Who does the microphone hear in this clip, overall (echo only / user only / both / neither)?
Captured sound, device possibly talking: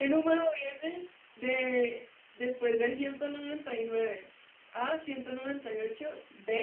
user only